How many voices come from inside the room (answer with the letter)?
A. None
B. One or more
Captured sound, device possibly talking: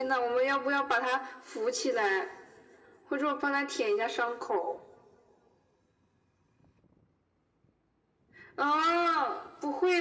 A